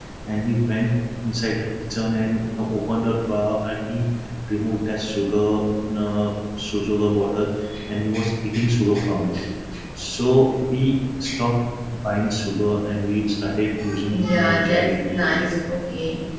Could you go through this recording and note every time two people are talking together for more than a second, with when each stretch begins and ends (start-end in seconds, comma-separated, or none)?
14.1-15.6